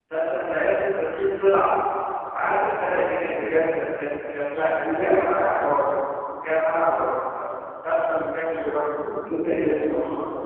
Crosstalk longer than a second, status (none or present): none